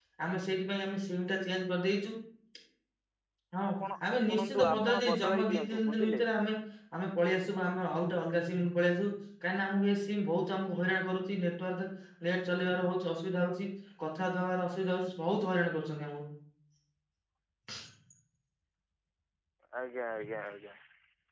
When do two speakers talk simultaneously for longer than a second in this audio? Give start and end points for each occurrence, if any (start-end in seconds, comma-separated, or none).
4.2-6.2